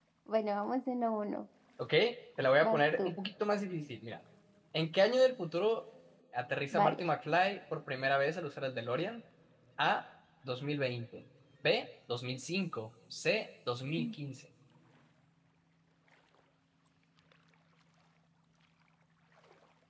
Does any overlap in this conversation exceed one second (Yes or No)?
No